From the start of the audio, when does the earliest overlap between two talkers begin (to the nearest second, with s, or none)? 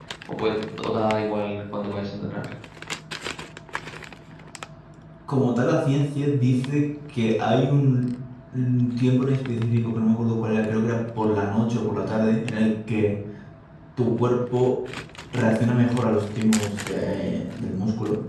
none